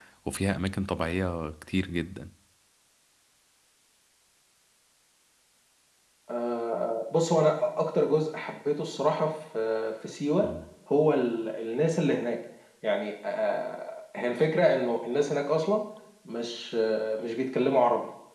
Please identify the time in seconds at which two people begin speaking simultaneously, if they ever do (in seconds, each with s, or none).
none